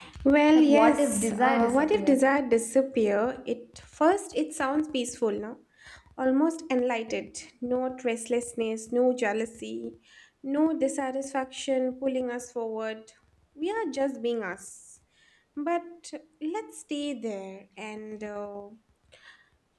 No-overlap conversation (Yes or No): No